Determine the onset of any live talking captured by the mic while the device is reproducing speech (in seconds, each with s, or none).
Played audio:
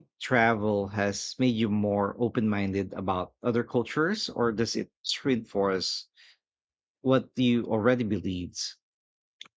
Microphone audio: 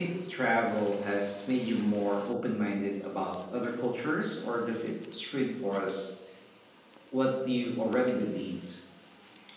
none